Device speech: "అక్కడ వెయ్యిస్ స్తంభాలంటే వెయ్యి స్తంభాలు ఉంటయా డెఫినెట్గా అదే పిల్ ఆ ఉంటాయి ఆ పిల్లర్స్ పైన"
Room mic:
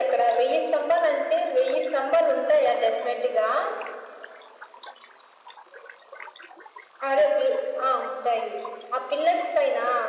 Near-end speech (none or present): none